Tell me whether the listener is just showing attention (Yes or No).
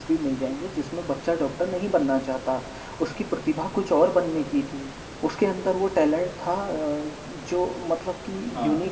Yes